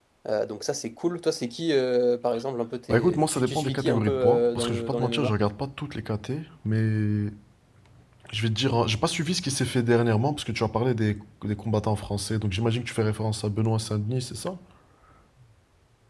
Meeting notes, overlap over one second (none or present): present